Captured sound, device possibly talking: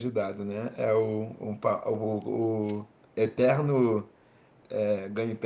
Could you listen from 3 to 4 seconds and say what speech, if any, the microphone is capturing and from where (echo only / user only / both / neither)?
user only